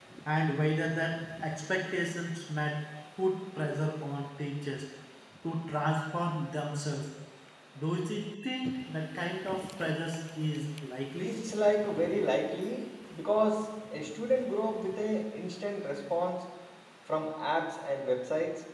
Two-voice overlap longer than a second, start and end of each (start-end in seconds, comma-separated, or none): none